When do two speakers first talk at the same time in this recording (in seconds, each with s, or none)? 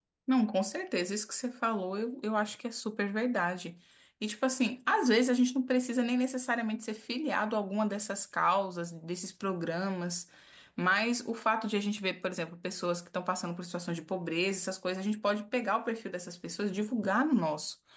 none